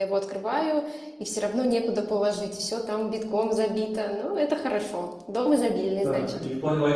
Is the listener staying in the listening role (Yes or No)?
No